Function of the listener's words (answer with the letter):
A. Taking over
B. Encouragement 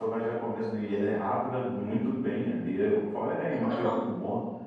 B